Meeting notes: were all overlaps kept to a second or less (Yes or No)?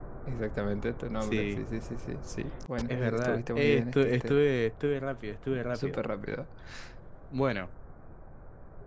No